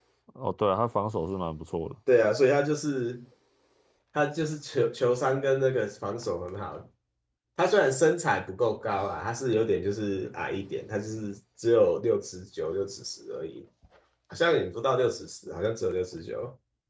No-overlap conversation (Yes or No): Yes